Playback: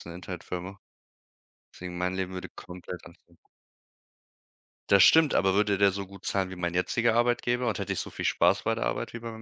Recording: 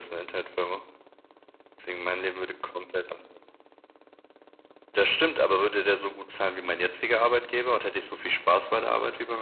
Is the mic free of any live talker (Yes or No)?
Yes